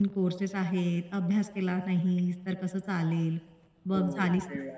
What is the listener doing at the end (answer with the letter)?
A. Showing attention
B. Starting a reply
B